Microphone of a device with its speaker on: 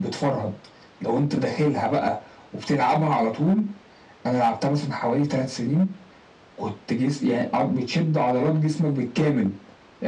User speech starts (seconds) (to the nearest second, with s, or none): none